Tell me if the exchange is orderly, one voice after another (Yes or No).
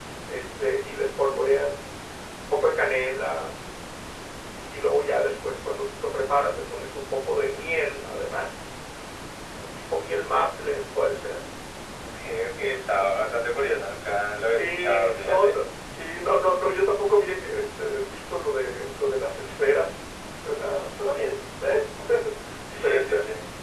No